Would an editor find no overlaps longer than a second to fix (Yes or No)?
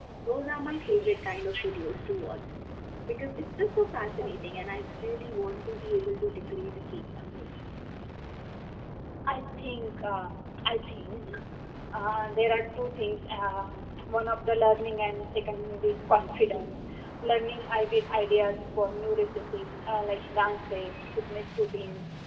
Yes